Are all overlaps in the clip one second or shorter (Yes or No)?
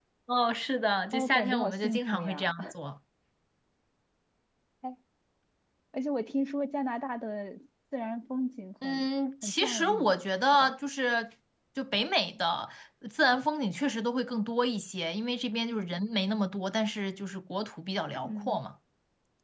No